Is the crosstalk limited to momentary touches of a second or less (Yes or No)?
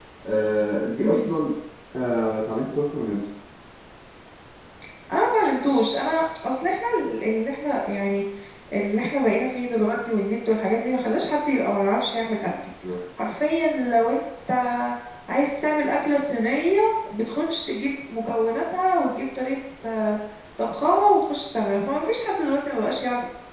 Yes